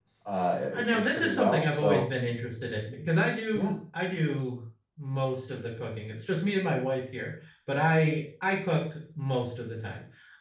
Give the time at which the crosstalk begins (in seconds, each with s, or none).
0.7 s